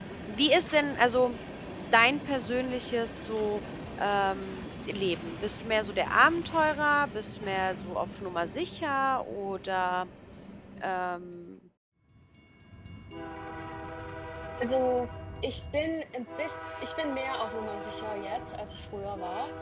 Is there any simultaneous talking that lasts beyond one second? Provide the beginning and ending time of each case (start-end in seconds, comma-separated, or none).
none